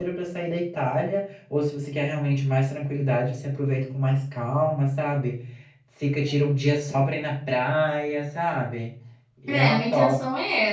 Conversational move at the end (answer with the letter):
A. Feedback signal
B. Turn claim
B